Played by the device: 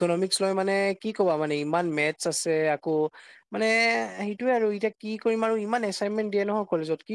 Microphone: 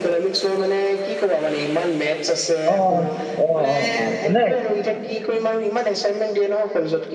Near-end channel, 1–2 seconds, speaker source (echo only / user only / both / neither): echo only